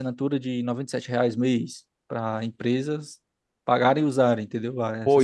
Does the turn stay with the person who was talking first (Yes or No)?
No